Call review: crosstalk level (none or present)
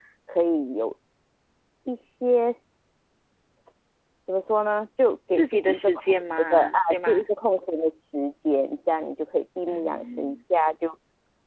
present